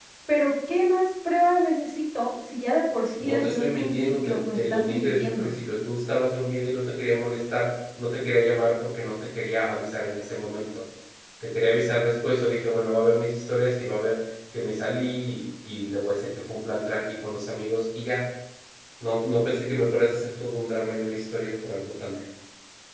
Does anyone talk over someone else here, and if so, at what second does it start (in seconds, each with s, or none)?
3.2 s